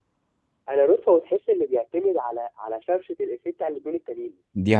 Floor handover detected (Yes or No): No